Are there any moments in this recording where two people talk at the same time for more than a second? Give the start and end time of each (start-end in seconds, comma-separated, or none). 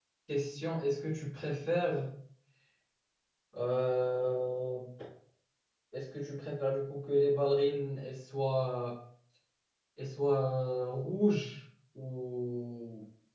none